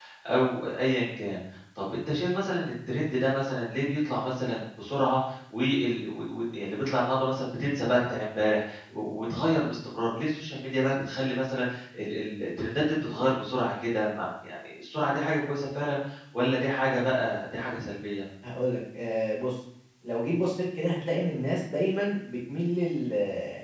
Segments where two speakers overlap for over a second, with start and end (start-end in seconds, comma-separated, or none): none